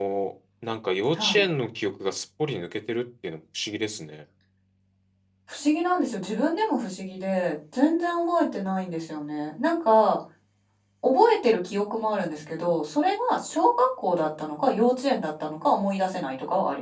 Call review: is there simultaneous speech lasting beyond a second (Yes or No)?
No